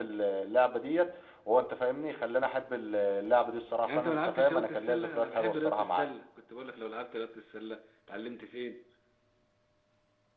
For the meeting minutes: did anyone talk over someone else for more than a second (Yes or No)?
Yes